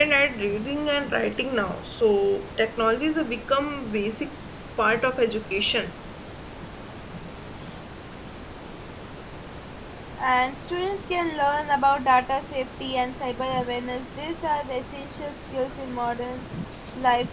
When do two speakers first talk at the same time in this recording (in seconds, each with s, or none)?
none